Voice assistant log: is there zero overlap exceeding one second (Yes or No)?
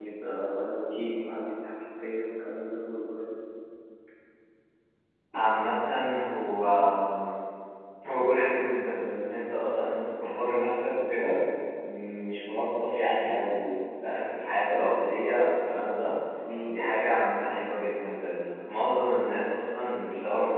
Yes